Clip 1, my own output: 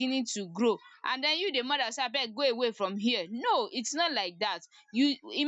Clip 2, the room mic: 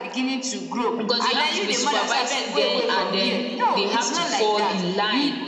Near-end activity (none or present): present